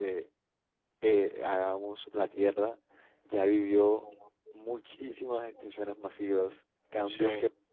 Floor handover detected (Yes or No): No